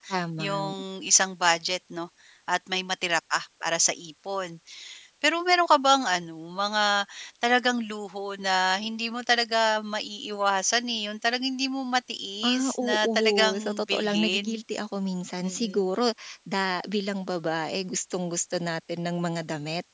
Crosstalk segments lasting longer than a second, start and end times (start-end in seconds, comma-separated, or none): 12.4-14.4